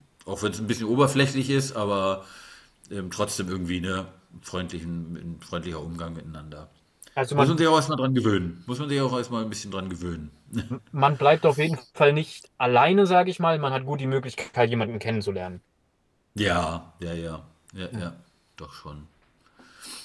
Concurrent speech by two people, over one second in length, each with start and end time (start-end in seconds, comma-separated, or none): none